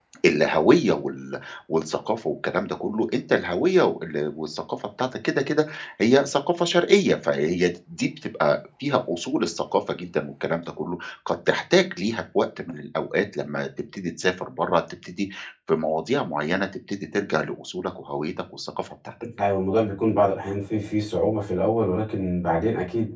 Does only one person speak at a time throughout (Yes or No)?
Yes